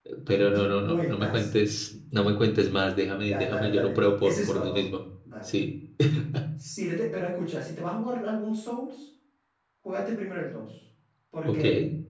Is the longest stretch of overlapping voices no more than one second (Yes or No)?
No